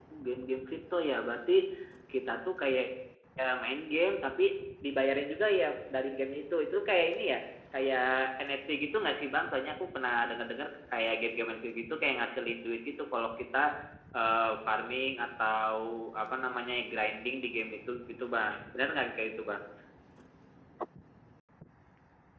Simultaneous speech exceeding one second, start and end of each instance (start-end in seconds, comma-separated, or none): none